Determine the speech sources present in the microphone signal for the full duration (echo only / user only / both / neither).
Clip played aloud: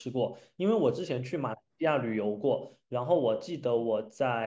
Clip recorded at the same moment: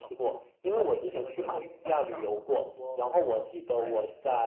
both